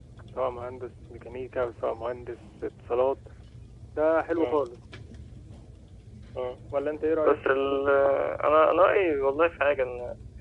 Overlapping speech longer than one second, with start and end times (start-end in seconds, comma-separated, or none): none